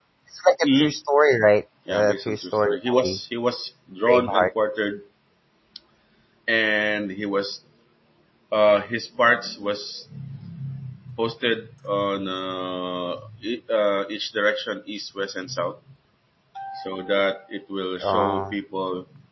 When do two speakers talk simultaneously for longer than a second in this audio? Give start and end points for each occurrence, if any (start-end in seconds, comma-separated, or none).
1.9-3.2